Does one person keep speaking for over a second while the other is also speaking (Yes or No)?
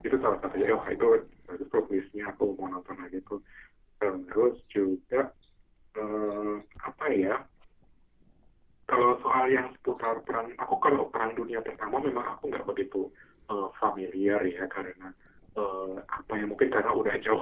No